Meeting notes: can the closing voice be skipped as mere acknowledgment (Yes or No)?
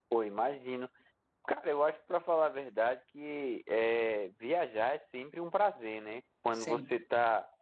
Yes